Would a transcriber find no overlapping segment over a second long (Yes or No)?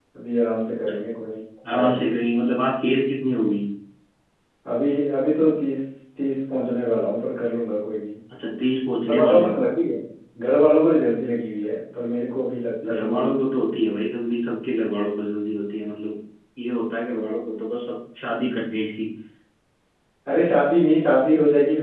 Yes